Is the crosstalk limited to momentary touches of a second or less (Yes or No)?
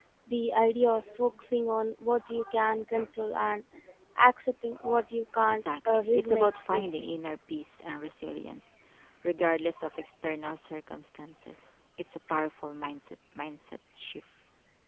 No